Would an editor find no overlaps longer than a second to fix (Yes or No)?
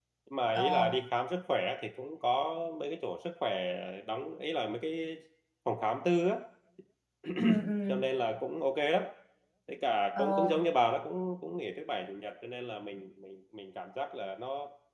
Yes